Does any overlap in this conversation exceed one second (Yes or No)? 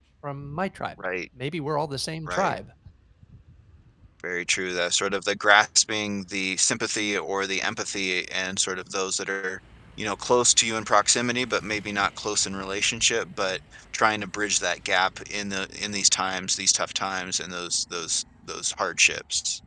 No